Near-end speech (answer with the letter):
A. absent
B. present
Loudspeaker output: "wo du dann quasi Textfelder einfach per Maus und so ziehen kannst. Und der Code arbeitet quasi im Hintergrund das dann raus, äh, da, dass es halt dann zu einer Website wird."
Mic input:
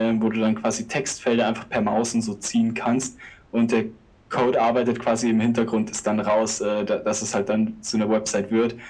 A